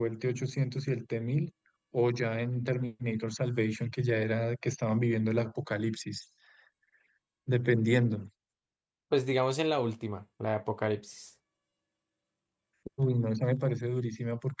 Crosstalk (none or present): none